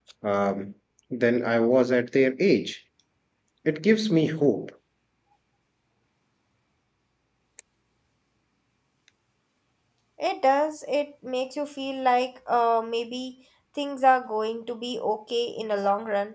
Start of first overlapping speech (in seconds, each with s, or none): none